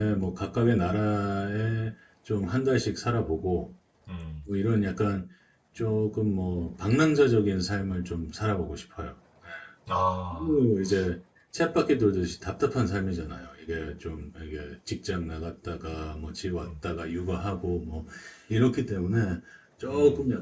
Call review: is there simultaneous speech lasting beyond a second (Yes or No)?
No